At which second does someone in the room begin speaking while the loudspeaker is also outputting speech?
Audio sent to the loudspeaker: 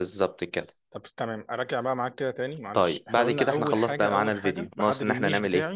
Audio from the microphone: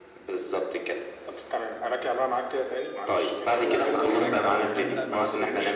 4.2 s

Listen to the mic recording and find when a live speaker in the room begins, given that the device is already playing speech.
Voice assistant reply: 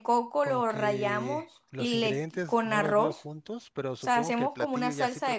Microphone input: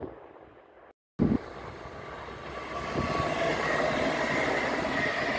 none

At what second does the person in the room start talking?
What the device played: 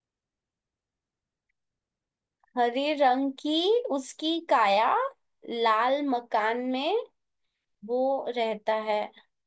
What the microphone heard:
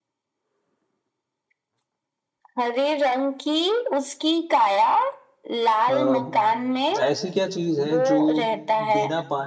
5.9 s

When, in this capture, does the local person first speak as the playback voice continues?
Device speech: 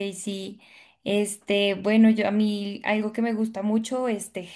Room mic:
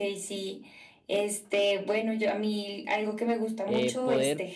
3.7 s

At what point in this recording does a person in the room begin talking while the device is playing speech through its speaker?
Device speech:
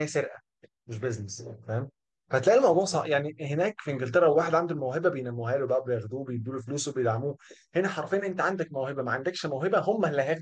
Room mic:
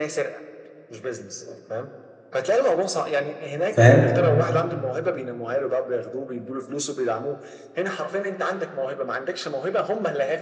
3.7 s

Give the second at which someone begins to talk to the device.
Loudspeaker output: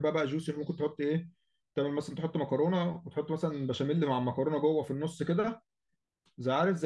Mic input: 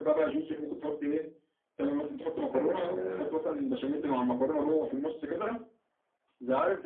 2.4 s

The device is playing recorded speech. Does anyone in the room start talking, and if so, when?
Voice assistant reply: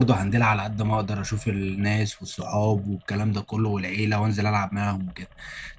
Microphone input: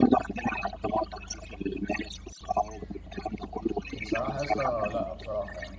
3.9 s

